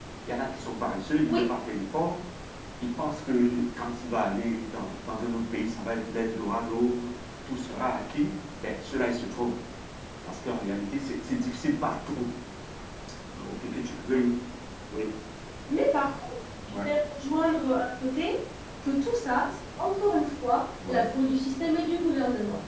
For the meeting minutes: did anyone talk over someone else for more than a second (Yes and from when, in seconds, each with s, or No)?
No